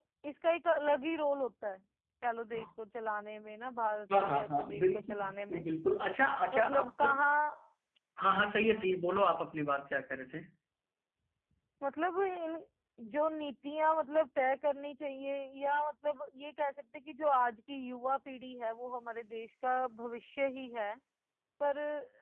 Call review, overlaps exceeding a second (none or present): present